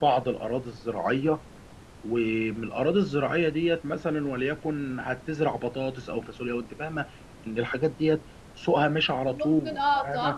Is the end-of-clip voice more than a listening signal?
Yes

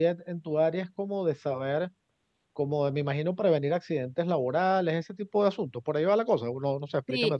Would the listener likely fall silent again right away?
No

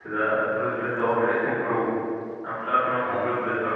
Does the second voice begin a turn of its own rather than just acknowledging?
No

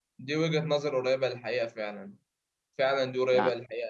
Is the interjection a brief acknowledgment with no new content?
Yes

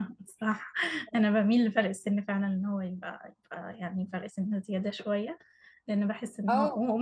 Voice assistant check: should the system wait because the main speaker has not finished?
Yes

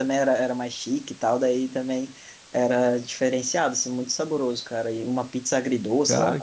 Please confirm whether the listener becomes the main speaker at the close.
No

